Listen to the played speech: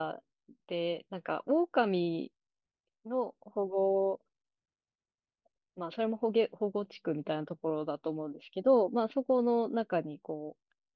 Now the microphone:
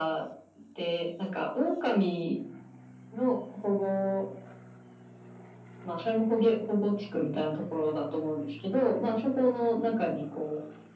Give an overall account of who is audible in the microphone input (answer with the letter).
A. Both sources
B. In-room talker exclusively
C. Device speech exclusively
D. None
C